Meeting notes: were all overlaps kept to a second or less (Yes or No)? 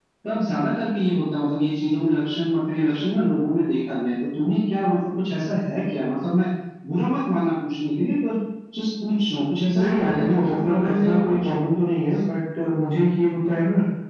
No